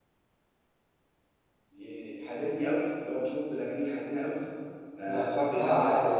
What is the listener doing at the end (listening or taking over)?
taking over